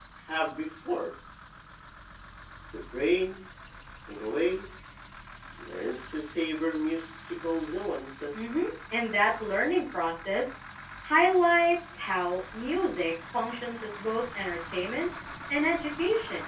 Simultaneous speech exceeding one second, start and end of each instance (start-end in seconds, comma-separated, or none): none